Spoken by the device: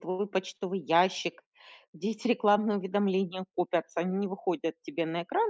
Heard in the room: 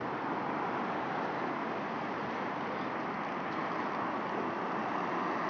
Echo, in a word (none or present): none